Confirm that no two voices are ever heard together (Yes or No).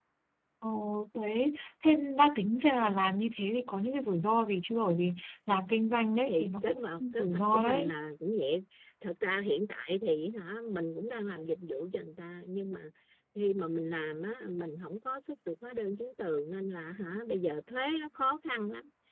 No